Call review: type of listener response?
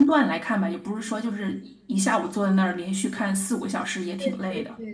taking over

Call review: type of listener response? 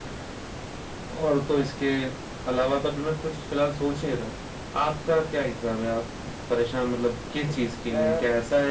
listening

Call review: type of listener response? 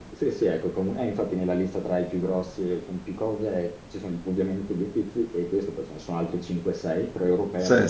listening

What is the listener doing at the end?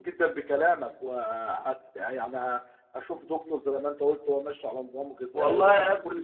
taking over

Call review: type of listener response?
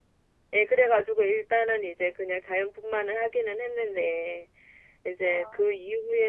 listening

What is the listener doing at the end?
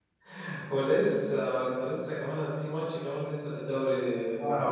taking over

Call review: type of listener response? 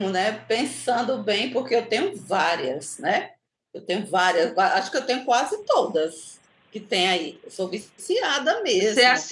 taking over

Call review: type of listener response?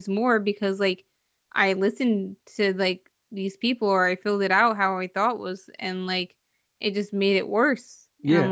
taking over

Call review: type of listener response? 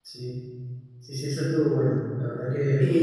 taking over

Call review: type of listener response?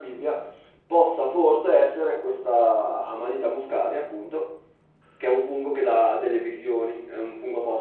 taking over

